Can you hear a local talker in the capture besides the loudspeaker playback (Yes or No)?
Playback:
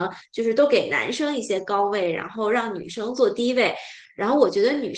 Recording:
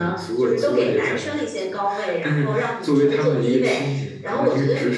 Yes